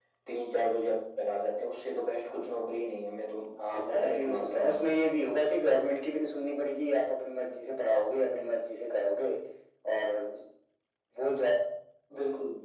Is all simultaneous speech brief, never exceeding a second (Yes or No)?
No